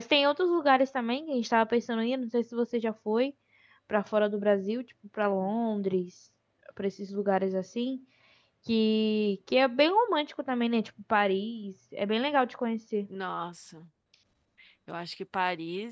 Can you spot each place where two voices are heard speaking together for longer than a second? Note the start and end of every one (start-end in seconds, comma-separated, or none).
none